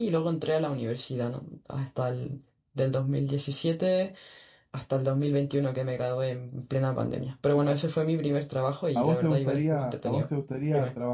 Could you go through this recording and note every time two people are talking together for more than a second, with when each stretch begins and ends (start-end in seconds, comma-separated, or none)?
9.0-10.2